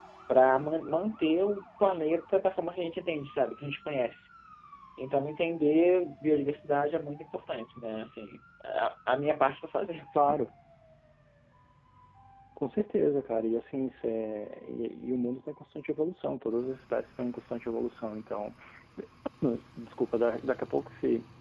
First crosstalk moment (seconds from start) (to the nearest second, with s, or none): none